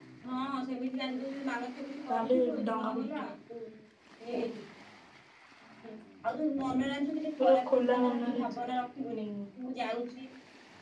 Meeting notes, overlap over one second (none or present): present